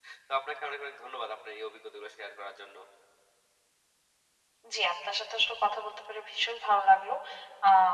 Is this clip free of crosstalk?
Yes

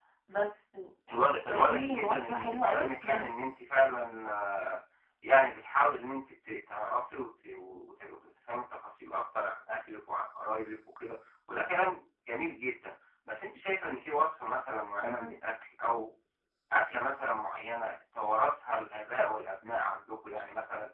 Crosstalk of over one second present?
Yes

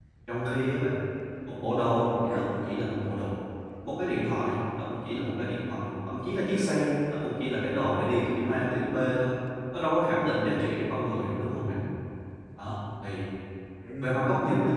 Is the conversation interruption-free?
No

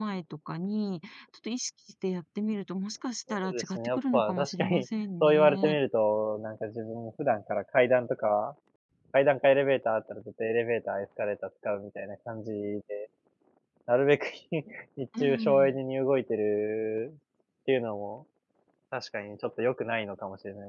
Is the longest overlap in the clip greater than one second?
Yes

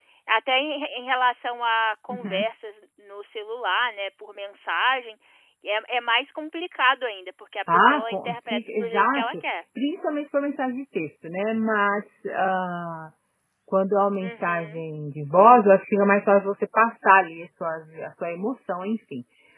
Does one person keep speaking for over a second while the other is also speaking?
Yes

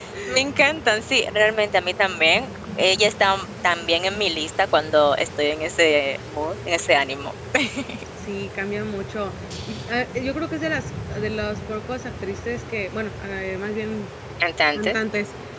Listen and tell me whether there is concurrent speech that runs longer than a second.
No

